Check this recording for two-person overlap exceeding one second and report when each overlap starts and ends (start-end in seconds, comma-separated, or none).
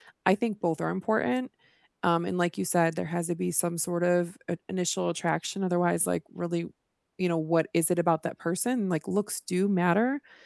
none